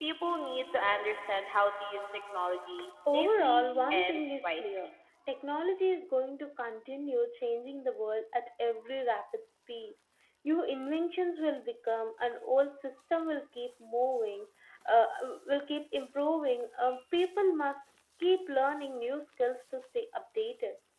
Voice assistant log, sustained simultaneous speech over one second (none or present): present